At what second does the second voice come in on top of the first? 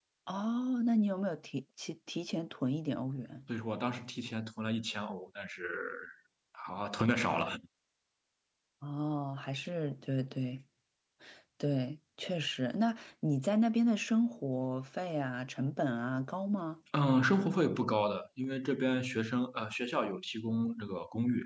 none

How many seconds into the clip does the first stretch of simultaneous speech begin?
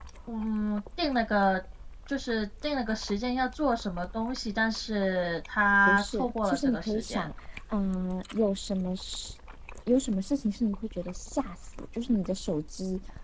5.9 s

